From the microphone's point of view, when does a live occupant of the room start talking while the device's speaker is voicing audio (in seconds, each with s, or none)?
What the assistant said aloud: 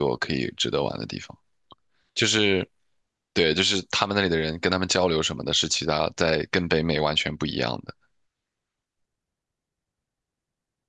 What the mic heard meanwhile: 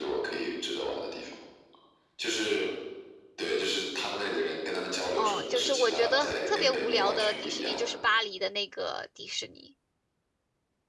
5.1 s